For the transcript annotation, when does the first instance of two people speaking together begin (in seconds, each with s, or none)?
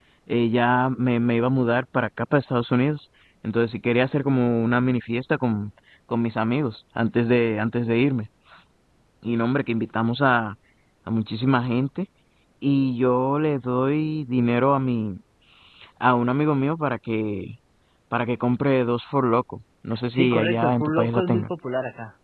20.1 s